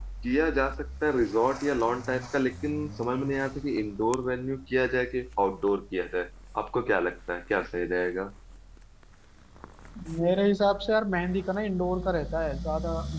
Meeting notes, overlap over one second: none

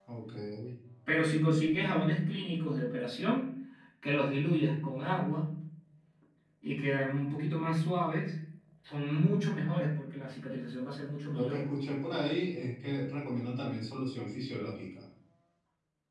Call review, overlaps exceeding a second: none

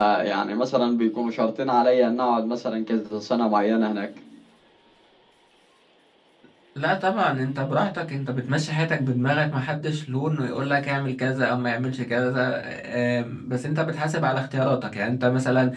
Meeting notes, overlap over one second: none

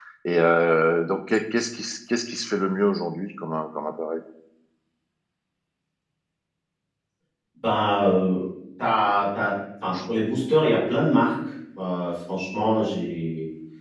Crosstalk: none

